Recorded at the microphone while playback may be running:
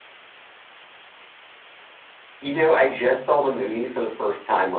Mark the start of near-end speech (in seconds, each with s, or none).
none